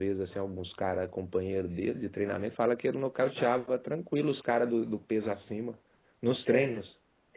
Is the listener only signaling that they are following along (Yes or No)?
No